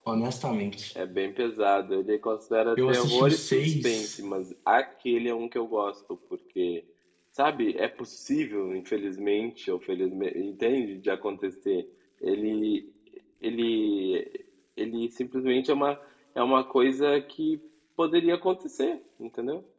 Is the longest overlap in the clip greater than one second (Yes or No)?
Yes